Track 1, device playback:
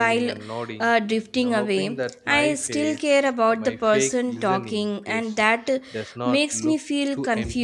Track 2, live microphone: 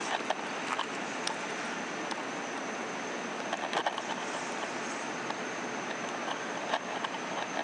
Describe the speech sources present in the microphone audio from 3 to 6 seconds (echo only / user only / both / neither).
neither